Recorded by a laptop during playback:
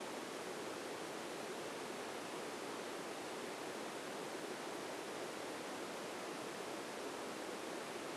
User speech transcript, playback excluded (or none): none